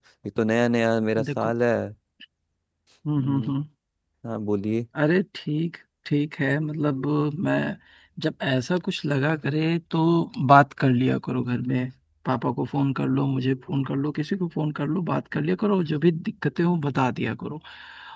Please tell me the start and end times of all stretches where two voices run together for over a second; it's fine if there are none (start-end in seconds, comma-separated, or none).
none